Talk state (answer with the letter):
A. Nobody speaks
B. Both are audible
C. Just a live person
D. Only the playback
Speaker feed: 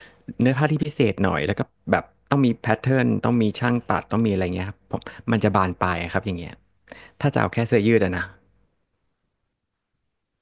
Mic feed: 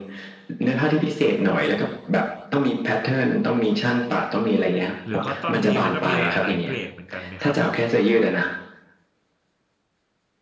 B